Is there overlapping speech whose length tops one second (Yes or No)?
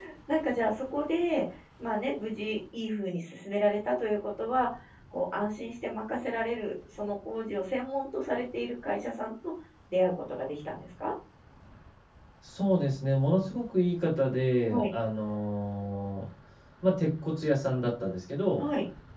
No